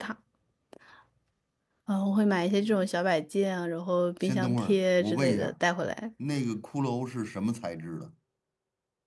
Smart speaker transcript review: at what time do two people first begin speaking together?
4.2 s

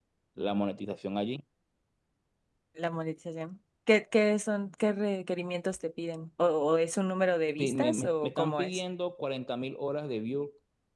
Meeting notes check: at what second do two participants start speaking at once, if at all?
7.6 s

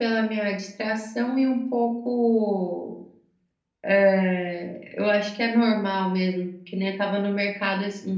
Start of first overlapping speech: none

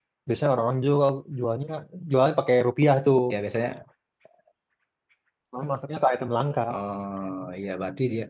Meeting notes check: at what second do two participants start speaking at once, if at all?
none

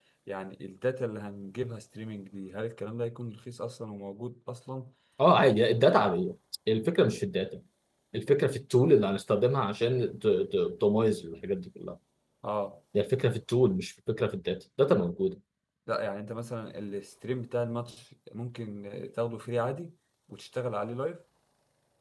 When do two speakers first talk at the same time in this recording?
none

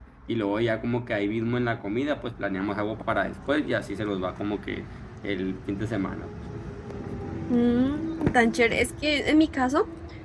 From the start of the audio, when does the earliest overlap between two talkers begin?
none

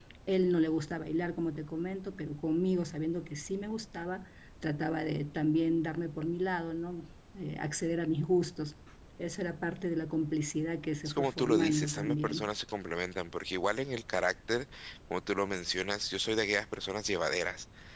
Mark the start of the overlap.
11.1 s

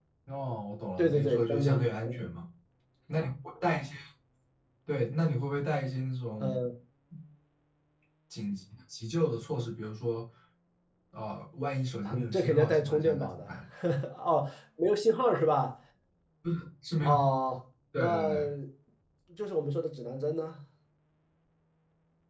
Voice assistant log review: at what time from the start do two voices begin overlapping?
1.0 s

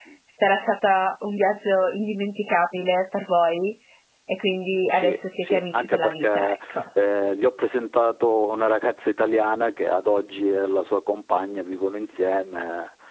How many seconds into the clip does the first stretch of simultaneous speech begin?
4.9 s

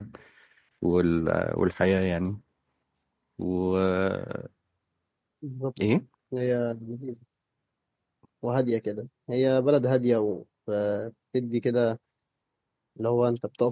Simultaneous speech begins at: none

